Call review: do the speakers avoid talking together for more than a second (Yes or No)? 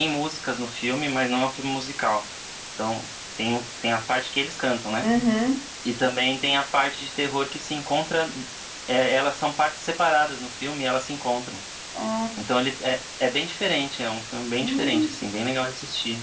Yes